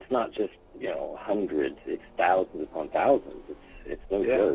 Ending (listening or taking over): listening